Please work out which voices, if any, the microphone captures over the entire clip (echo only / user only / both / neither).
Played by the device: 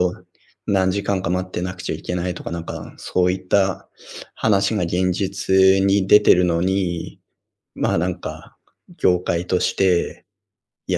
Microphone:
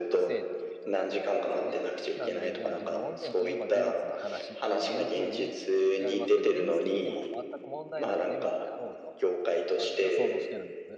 both